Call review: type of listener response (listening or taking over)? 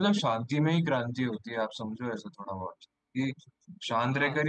listening